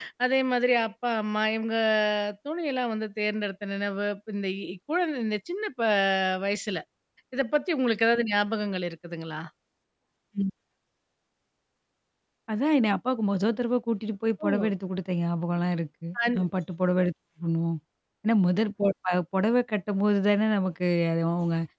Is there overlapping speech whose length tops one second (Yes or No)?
No